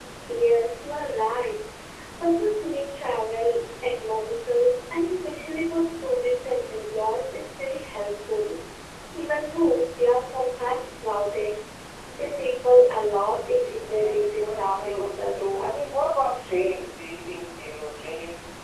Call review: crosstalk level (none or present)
present